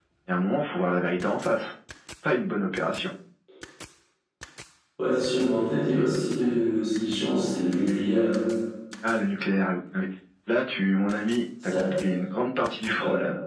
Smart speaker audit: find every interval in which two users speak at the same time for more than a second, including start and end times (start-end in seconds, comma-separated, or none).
none